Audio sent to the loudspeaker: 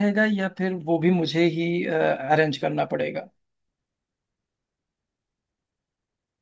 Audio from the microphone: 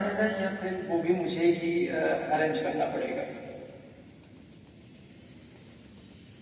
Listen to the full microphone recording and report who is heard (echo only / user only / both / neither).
echo only